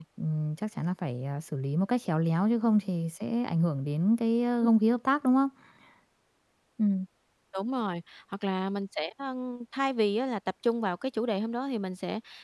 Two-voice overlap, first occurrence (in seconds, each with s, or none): none